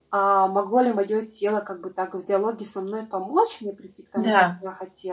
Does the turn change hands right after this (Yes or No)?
No